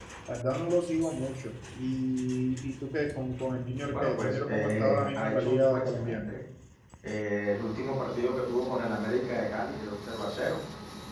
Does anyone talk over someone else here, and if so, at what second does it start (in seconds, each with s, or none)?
3.9 s